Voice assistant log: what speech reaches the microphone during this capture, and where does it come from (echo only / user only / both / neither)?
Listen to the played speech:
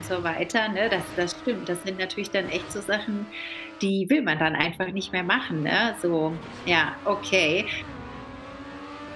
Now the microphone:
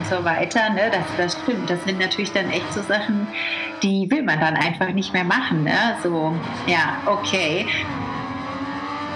echo only